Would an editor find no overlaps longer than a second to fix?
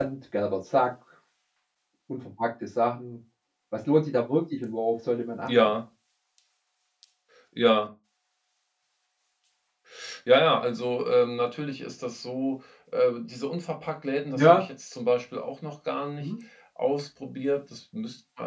Yes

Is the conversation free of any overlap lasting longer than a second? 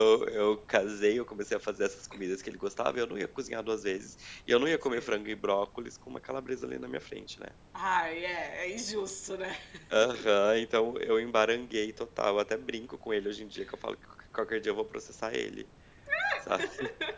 Yes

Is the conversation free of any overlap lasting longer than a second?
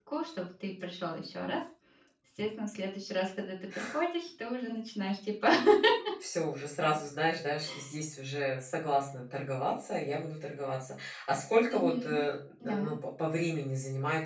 Yes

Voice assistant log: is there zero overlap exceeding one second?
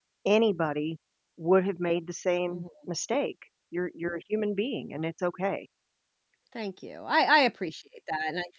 Yes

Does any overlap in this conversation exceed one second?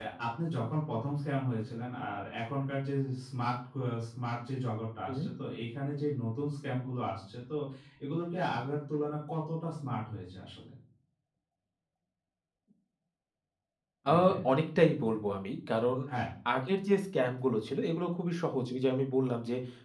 No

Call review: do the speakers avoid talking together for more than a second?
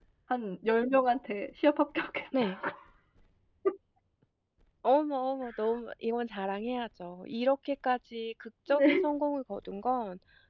Yes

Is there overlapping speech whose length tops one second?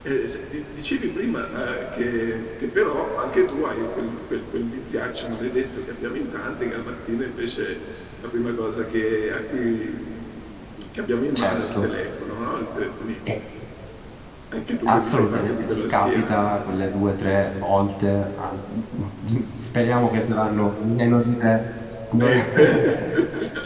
Yes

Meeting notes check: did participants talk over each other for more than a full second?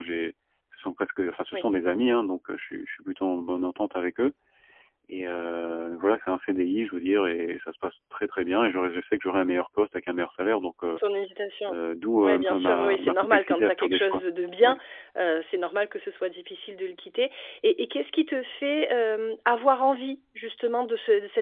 Yes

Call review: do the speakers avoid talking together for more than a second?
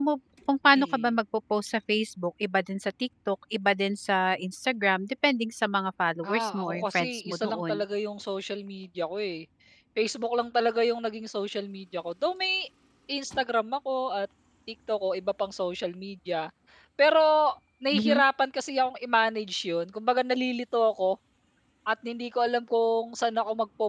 No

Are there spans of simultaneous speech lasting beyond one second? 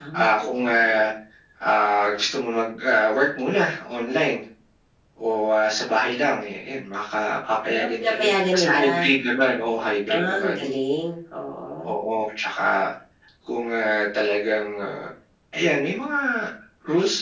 Yes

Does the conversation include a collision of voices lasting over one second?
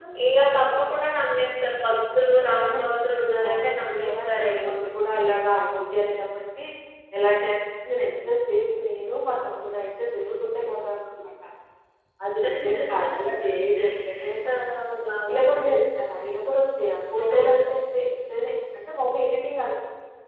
Yes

